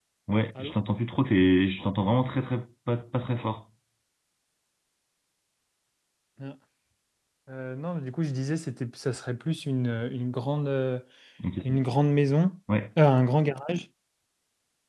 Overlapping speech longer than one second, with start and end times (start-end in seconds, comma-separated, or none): none